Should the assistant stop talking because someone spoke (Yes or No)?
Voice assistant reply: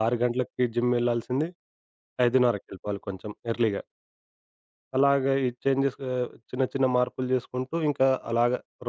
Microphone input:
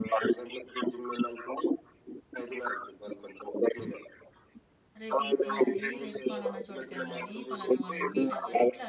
Yes